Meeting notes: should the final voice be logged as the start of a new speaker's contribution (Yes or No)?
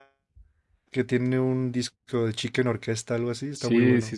Yes